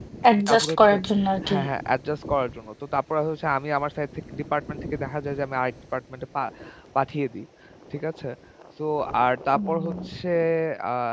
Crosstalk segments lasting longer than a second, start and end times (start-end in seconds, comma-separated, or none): none